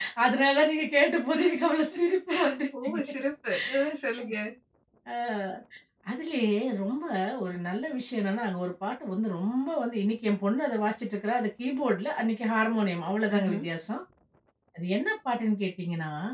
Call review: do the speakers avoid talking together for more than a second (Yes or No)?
Yes